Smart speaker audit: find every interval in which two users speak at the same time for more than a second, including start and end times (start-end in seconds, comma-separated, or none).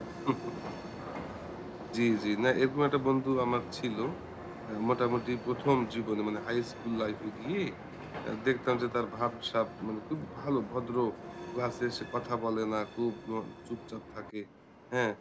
none